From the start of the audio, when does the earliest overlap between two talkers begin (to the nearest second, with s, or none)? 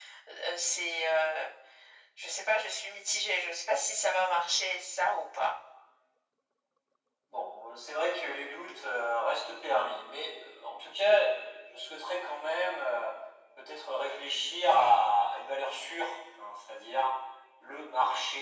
none